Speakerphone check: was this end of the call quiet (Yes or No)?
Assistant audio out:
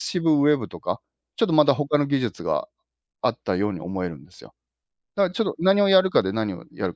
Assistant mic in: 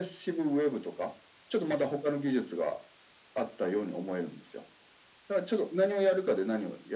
Yes